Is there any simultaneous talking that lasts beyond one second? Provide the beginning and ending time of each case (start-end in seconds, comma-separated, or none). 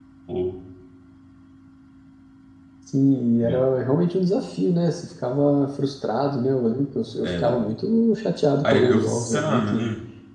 8.6-9.8